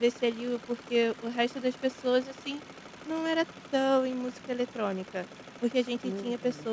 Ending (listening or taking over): listening